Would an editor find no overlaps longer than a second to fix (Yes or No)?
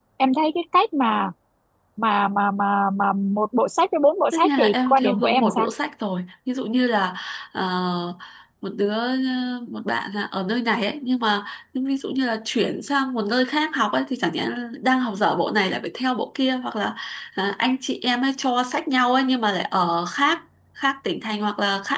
No